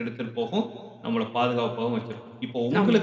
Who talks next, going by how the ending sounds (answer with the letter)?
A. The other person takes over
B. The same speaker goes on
B